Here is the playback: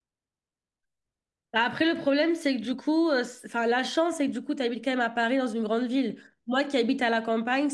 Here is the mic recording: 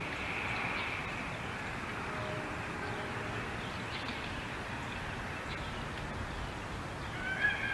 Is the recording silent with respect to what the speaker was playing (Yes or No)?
Yes